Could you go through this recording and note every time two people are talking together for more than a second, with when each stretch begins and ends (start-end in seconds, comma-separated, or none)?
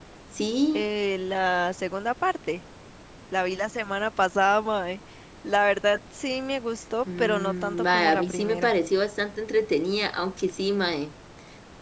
7.2-8.7